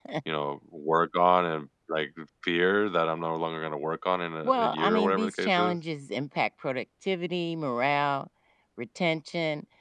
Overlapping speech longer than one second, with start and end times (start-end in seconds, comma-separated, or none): 4.4-5.8